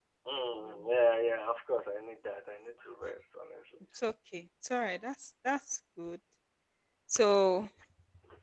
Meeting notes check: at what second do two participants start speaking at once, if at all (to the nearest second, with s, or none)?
none